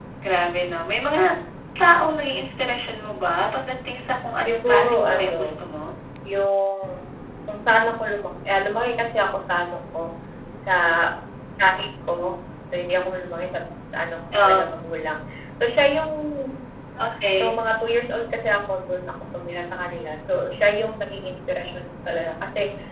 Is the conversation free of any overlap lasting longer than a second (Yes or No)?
No